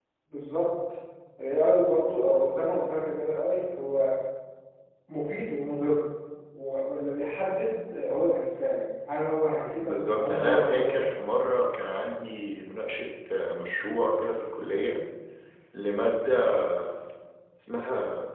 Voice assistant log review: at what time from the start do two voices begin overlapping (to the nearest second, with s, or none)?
10 s